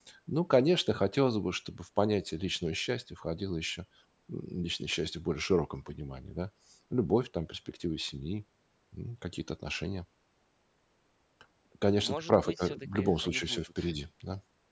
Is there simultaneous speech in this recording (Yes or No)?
Yes